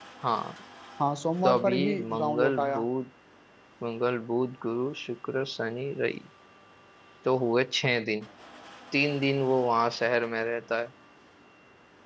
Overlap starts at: 1.4 s

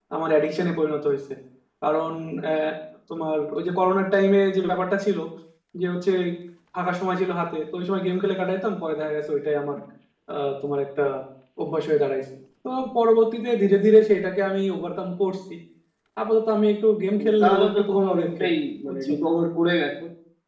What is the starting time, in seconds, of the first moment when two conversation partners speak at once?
17.2 s

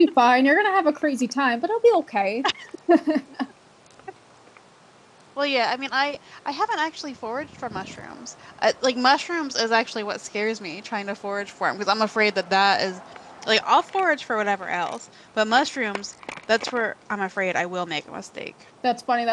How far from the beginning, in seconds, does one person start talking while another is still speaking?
none

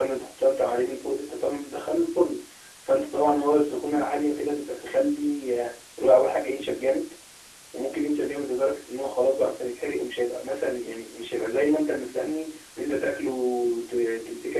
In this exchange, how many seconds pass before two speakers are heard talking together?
none

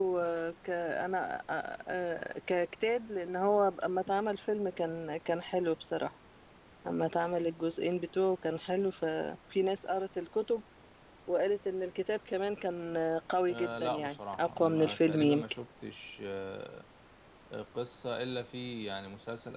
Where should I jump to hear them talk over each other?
13.5 s

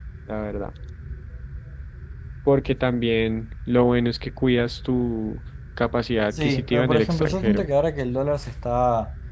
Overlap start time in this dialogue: 6.3 s

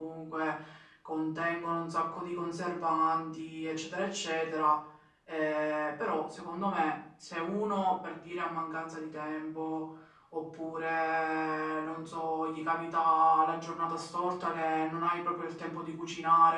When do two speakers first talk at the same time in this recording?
none

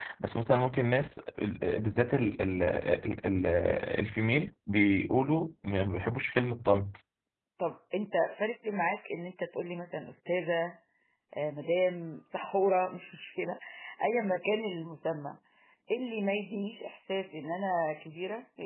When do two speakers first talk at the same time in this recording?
none

